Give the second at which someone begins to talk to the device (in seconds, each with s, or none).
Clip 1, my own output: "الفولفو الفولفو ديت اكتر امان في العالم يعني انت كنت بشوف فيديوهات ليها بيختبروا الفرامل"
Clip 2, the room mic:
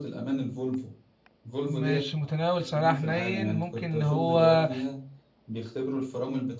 1.6 s